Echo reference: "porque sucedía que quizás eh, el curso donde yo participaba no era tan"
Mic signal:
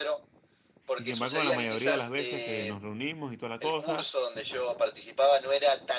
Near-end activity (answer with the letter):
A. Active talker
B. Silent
A